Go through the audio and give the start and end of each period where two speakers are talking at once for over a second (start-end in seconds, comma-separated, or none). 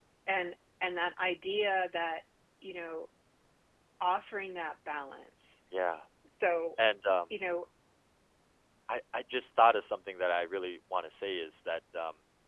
none